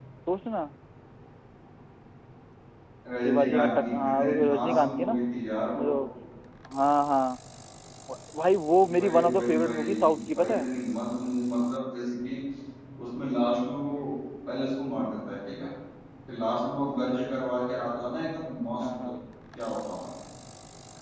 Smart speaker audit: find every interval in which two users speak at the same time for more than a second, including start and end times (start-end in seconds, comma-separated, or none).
3.2-5.2, 9.0-10.7